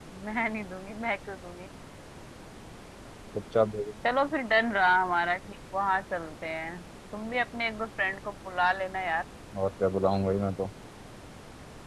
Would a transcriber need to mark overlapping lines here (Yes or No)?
No